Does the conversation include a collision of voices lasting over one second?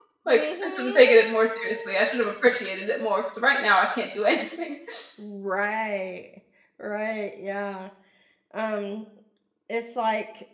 Yes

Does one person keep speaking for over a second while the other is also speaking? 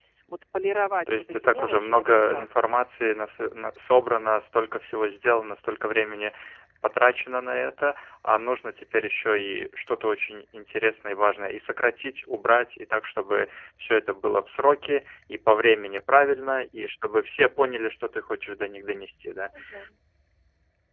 Yes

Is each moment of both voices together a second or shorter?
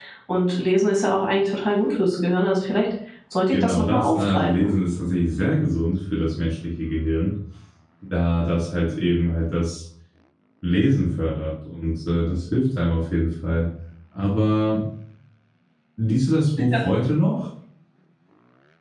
No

